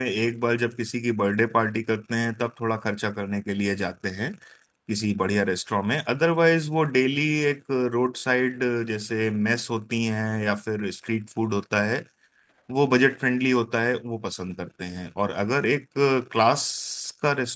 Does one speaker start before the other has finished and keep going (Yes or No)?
No